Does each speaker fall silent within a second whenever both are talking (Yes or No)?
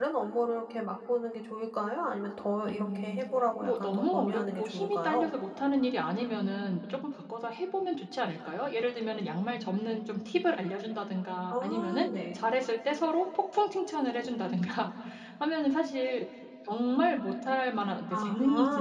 No